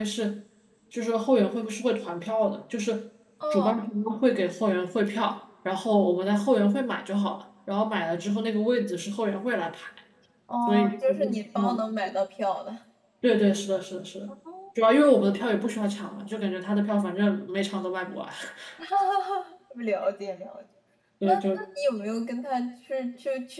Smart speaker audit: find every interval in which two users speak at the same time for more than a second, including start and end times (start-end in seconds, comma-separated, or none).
10.7-12.1